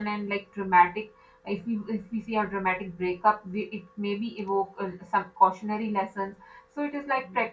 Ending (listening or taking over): listening